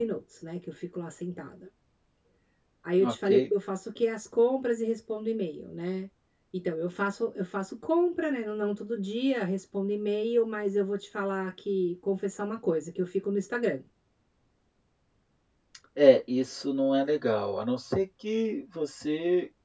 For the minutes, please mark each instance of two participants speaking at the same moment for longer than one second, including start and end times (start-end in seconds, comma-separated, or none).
none